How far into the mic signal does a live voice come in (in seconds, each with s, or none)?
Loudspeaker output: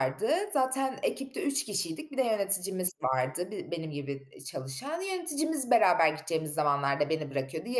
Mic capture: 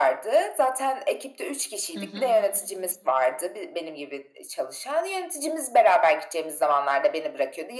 1.9 s